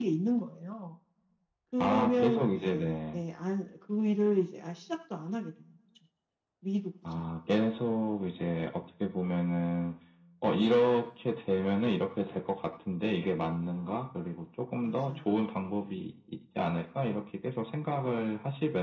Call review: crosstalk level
present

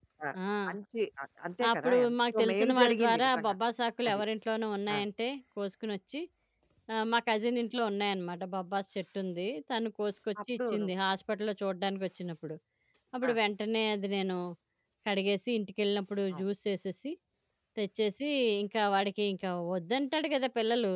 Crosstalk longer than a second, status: present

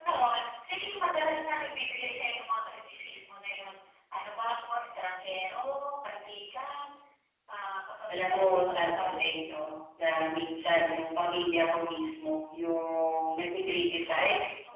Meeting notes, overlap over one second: present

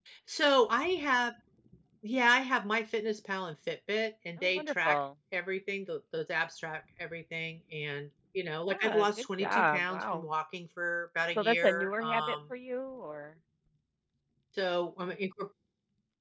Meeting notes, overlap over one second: present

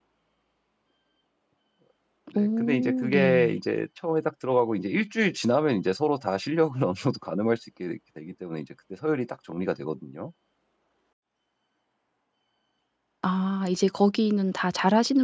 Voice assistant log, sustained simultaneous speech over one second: present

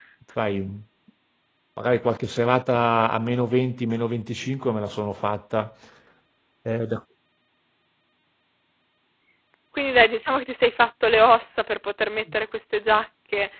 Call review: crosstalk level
none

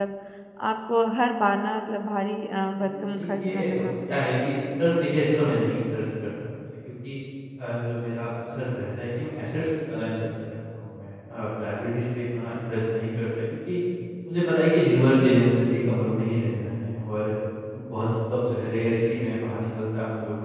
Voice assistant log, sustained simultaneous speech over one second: present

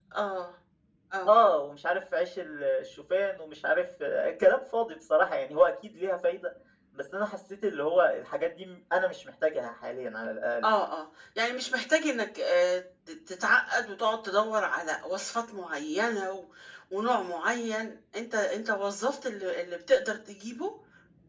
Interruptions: none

